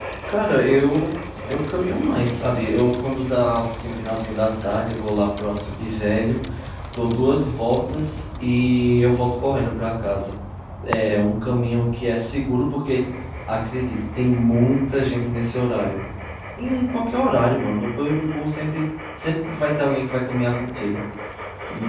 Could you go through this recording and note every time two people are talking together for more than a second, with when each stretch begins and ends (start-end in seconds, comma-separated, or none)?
none